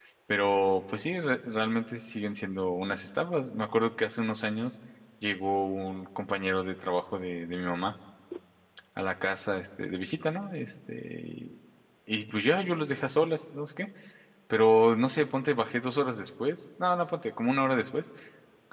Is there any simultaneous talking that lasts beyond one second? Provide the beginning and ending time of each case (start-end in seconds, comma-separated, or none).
none